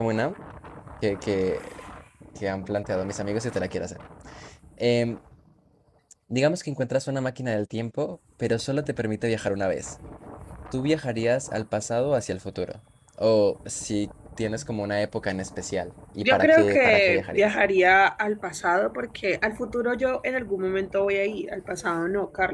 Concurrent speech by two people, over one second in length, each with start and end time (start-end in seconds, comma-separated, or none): 16.2-17.4